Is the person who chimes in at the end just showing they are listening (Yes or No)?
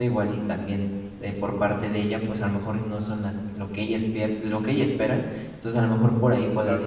Yes